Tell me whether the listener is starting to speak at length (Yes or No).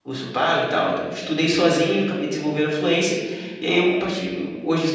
No